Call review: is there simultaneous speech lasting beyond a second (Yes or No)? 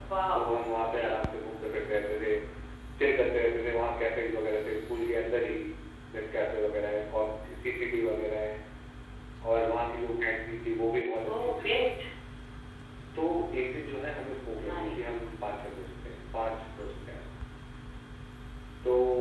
No